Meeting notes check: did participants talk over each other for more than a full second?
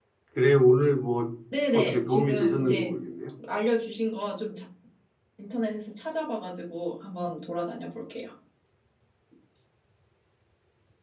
Yes, from 1.7 s

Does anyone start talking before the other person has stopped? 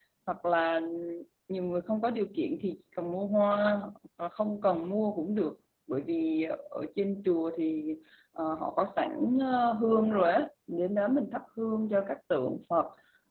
No

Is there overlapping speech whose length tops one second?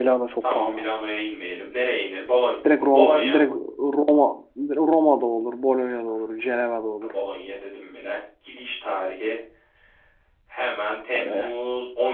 No

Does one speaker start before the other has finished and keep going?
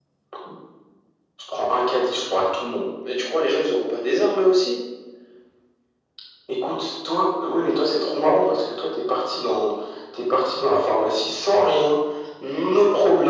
No

